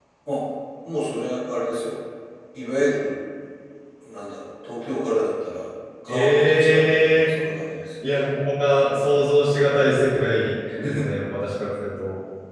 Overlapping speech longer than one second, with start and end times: 6.1-7.3

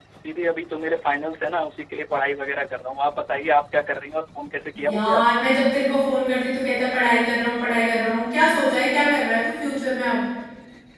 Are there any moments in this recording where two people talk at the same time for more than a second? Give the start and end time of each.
none

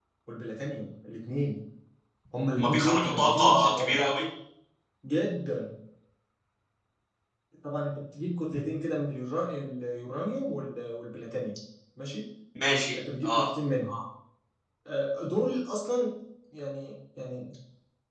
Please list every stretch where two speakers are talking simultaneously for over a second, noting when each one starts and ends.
2.6-4.0

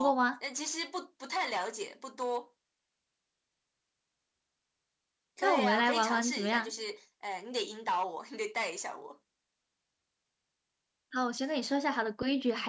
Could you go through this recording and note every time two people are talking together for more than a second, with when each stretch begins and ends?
5.4-6.7

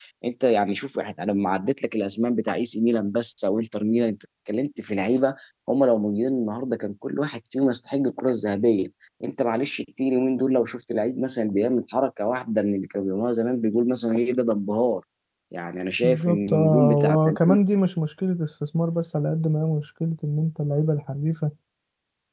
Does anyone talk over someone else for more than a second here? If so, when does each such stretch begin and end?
16.0-17.4

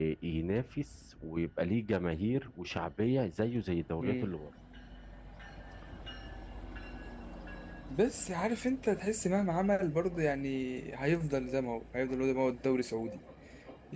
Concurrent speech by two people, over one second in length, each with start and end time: none

